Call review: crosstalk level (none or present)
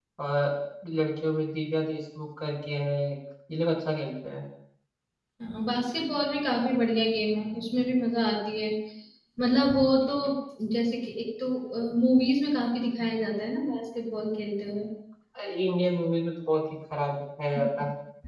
none